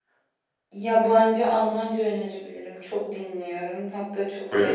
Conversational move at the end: listening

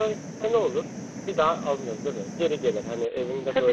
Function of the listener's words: listening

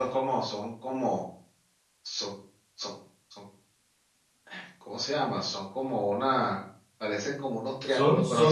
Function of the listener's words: taking over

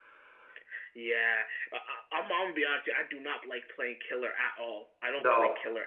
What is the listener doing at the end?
listening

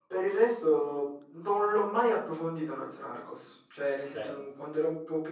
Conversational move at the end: listening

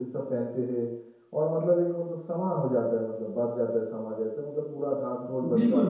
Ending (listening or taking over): taking over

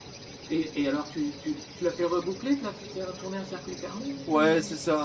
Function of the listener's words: taking over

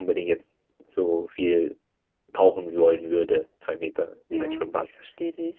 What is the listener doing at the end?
taking over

